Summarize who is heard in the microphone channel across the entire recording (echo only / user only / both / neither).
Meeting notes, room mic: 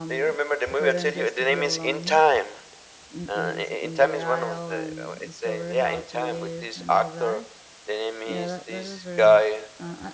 both